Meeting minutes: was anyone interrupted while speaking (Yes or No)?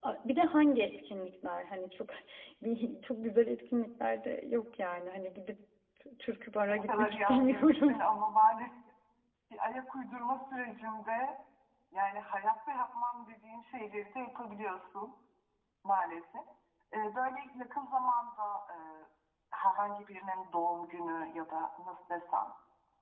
Yes